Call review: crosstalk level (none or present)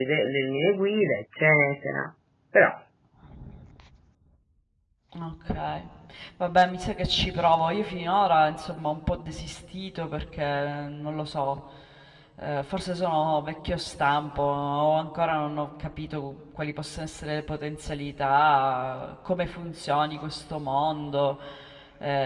none